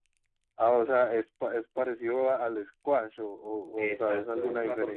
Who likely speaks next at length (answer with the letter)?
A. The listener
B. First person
A